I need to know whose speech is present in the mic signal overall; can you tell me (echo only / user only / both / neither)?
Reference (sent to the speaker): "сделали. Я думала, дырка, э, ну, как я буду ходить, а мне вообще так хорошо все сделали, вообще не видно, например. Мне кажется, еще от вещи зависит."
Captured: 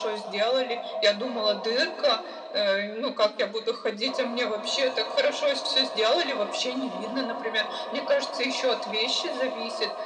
echo only